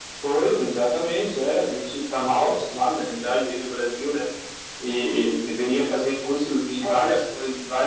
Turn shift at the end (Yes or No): No